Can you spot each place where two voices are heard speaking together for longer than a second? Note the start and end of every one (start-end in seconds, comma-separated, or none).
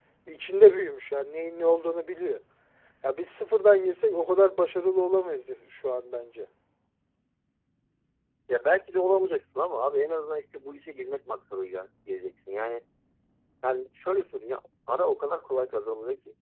none